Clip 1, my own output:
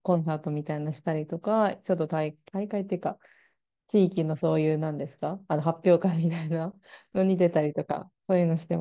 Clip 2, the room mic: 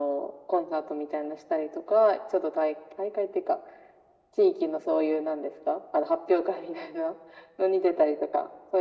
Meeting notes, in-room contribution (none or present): none